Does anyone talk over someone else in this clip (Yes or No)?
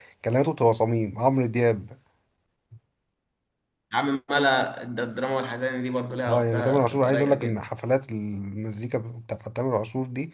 Yes